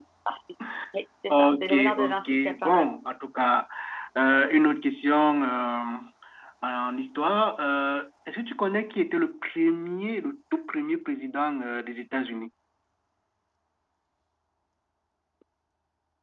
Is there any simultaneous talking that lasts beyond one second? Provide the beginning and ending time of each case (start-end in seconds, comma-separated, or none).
1.3-2.8